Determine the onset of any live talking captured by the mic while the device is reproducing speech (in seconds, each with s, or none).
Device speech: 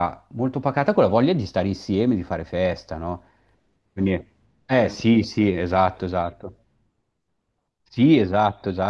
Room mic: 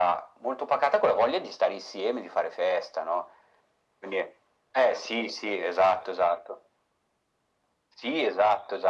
none